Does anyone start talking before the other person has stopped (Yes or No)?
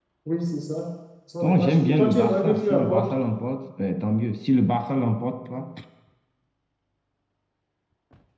Yes